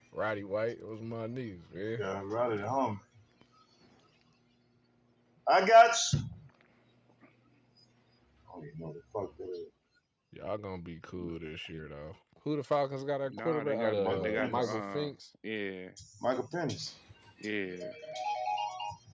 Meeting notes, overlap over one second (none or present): present